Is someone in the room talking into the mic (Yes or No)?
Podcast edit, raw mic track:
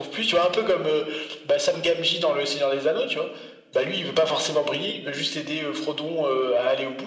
No